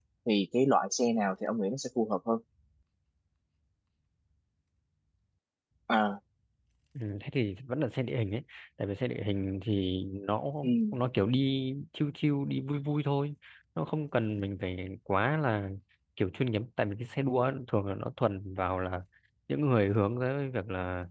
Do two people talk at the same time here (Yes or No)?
No